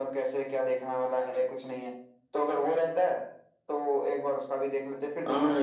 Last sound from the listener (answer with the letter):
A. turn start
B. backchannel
A